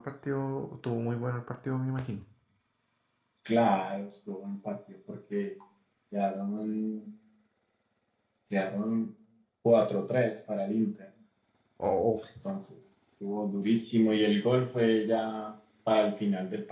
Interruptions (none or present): none